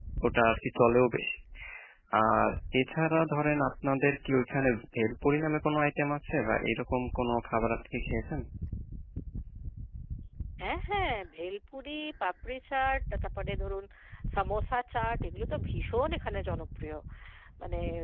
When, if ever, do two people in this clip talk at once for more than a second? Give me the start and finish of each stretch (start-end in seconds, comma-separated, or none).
none